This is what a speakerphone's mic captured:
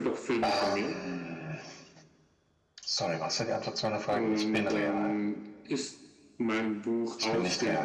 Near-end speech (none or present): present